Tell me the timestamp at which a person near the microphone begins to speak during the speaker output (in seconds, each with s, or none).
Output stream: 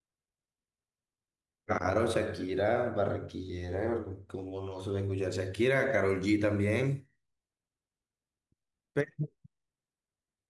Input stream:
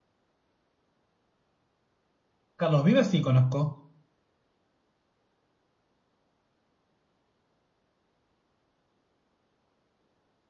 2.6 s